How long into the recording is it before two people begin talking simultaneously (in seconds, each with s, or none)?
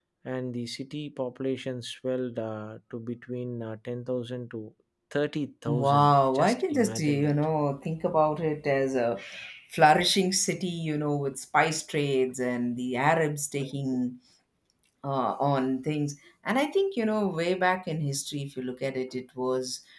5.7 s